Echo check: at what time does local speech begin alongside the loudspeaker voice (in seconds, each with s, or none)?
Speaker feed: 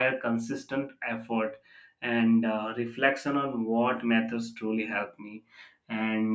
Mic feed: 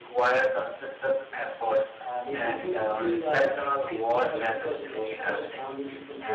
2.0 s